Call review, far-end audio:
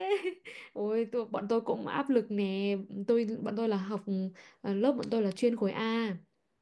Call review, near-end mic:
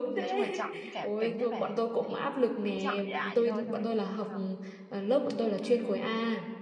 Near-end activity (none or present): present